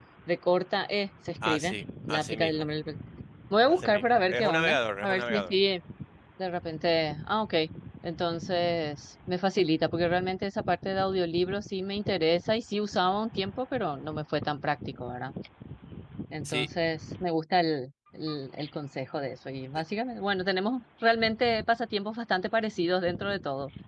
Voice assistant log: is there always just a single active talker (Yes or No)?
No